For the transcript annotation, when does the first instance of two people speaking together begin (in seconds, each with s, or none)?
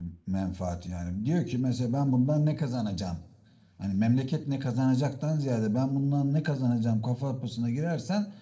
none